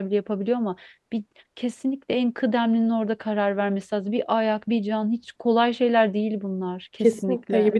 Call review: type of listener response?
taking over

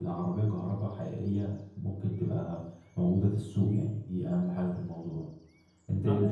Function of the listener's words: taking over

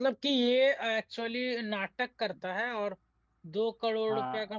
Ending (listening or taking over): listening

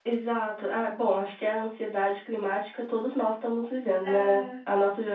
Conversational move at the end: listening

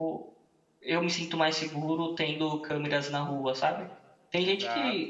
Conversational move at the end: listening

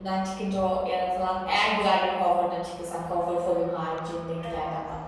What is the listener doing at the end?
taking over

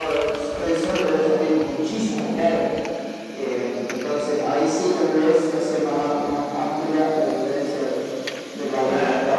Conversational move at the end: taking over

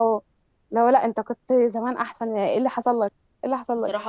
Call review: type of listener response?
taking over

